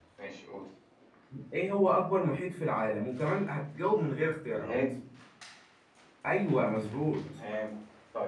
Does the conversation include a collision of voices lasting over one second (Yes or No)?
No